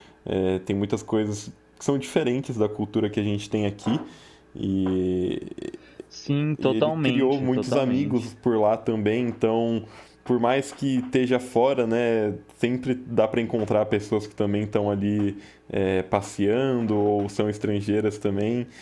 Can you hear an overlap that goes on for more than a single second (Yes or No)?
Yes